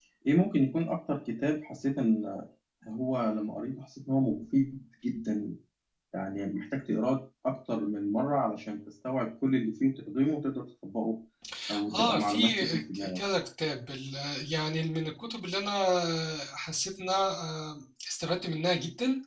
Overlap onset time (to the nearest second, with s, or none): 12 s